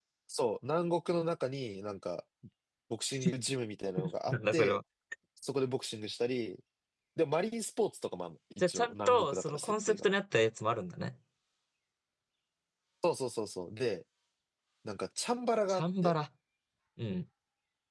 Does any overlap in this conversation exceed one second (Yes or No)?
Yes